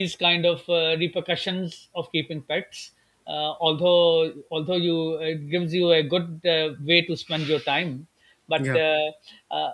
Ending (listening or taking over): listening